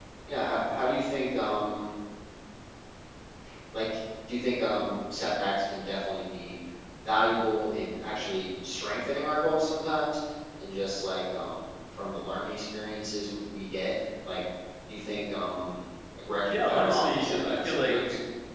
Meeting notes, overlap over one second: present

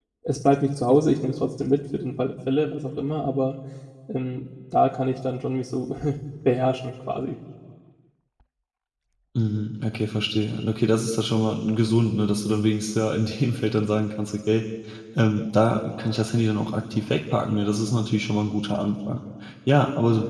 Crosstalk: none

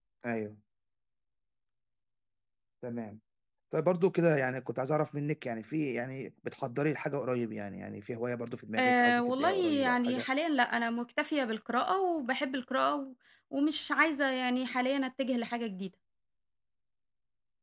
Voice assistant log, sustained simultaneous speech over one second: present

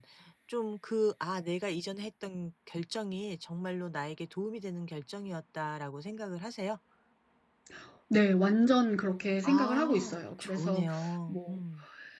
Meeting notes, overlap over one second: present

